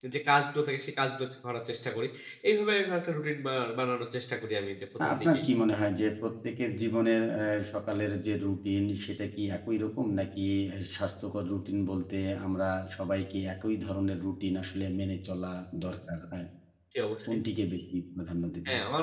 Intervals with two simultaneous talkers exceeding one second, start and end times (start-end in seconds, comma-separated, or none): none